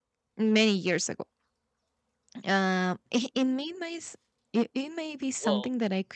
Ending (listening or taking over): listening